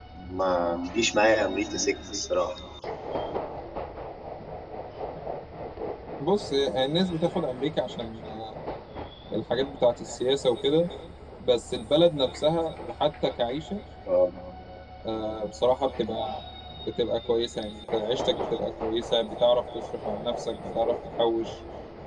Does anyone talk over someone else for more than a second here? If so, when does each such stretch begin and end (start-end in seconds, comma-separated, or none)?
none